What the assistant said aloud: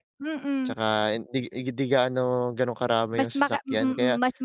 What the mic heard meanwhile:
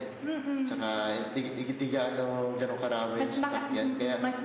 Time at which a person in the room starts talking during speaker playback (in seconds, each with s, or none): none